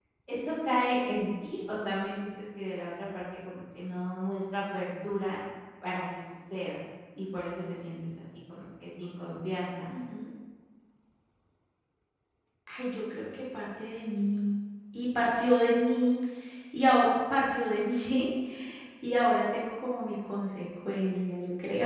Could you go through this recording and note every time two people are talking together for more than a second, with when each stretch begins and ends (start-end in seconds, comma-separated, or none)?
none